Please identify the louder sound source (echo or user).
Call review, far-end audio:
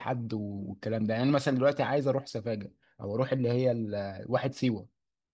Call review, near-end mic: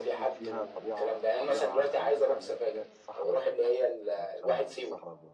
echo